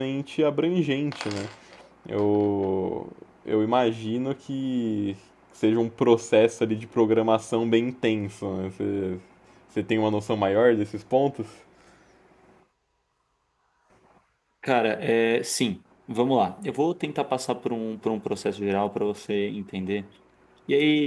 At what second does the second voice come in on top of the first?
none

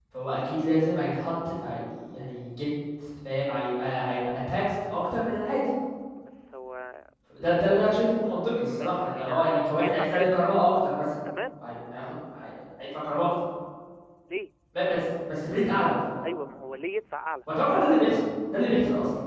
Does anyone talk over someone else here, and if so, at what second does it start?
9 s

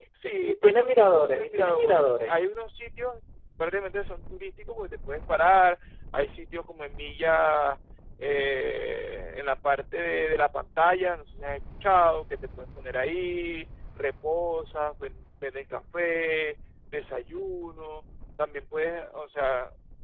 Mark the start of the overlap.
1 s

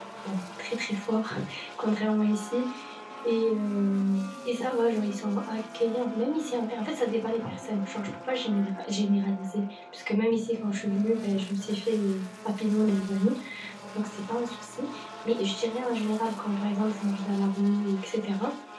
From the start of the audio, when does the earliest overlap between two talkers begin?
none

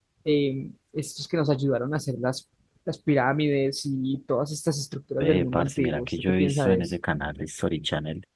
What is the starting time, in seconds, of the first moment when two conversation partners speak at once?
5 s

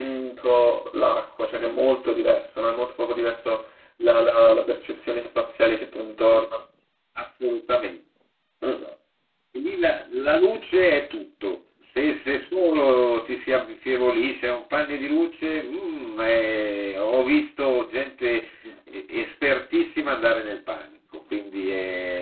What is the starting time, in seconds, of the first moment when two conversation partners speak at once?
none

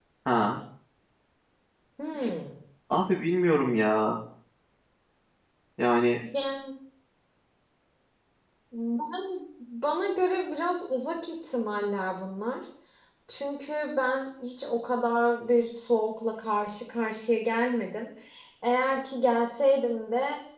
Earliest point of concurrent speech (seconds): none

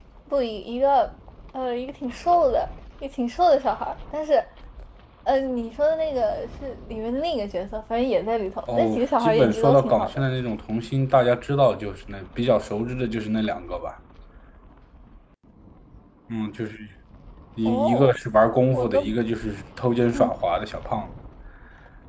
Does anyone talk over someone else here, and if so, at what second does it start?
9 s

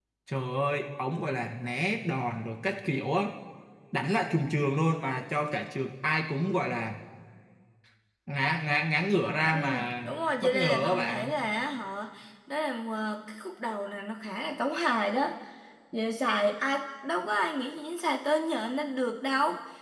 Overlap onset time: 10 s

